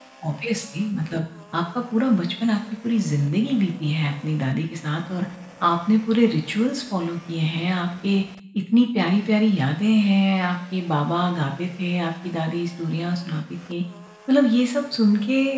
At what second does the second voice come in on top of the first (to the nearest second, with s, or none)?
none